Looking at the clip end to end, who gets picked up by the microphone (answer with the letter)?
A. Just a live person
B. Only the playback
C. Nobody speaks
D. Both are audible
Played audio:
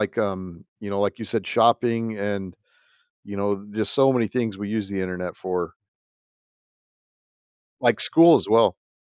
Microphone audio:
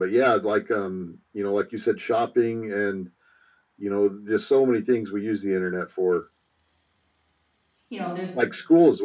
D